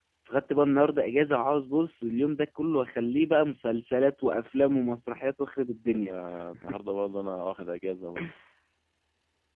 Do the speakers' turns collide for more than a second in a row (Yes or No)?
No